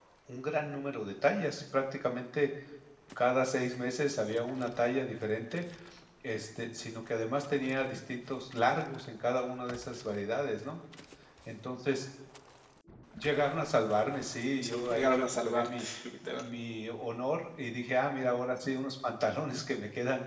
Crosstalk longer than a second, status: present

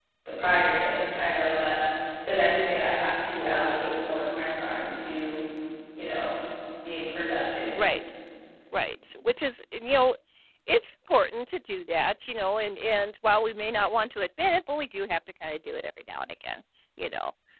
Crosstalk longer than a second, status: none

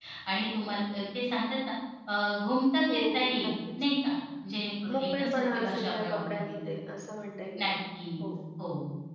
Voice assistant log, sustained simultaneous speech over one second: present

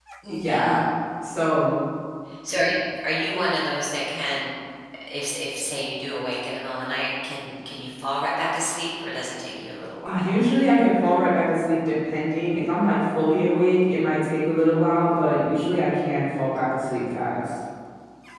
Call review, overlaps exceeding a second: none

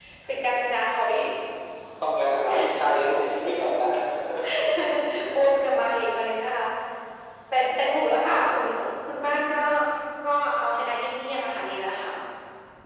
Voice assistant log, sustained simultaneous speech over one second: none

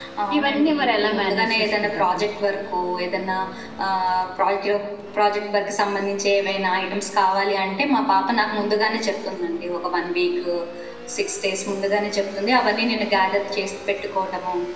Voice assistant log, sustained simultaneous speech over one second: present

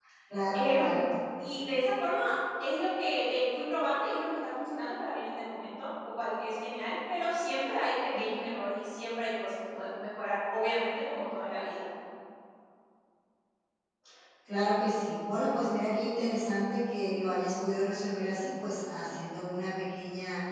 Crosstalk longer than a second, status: none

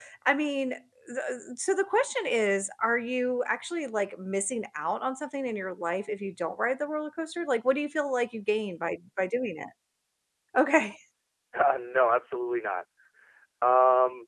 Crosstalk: none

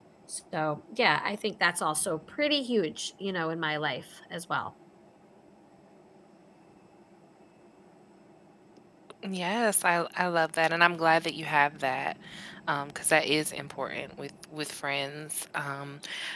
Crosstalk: none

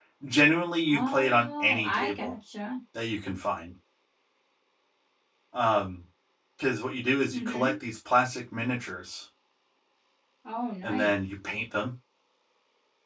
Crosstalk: present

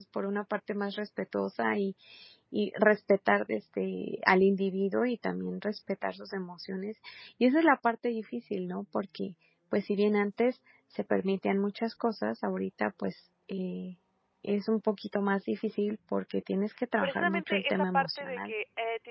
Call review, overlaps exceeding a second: present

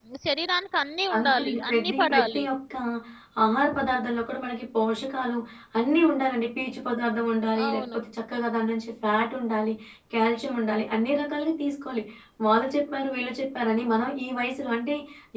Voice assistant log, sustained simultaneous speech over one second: present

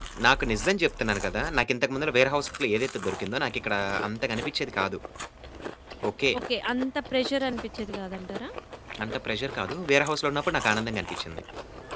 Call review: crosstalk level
none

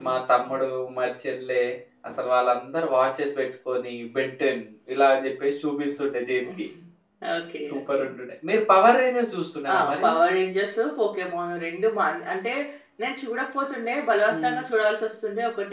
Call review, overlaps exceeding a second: none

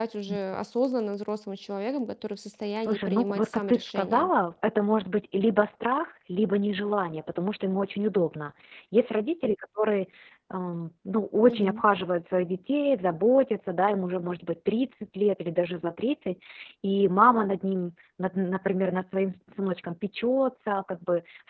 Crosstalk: present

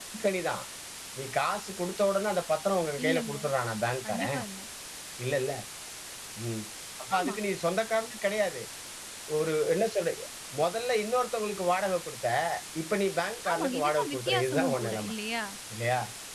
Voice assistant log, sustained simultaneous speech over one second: present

